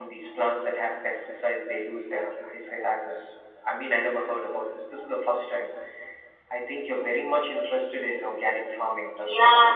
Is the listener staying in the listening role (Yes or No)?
No